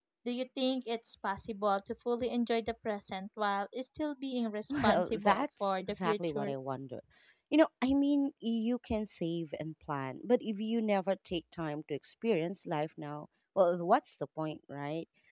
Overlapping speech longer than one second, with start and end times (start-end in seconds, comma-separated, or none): 4.7-6.5